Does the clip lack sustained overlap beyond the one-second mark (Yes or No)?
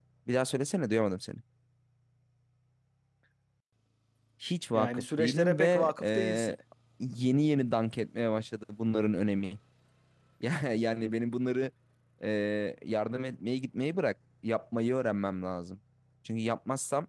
No